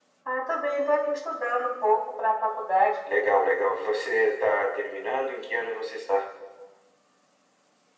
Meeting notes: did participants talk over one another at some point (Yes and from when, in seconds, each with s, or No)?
No